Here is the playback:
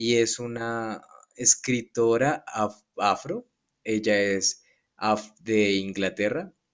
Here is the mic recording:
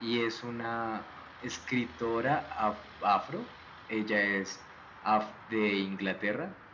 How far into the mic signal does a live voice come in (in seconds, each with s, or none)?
none